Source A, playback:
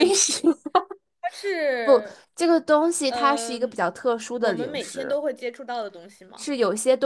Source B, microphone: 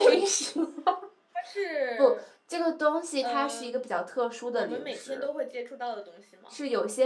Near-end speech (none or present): none